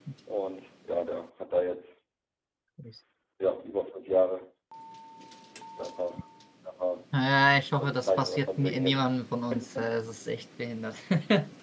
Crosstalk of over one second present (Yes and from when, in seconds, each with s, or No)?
Yes, from 7.8 s